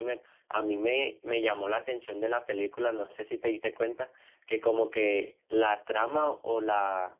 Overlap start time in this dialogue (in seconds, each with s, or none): none